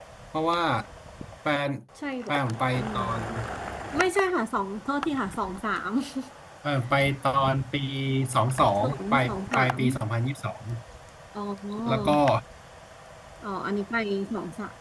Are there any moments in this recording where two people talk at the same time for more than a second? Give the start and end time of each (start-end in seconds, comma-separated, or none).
8.6-9.8